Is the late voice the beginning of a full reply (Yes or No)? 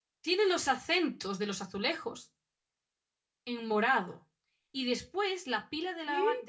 No